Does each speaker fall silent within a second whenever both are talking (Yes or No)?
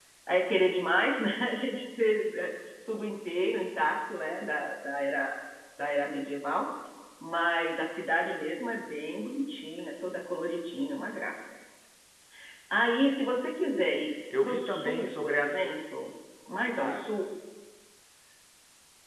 No